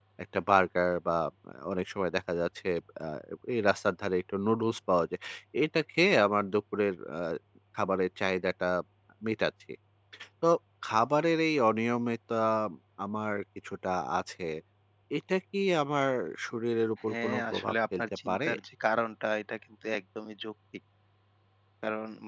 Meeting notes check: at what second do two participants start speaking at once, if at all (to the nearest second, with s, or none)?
17 s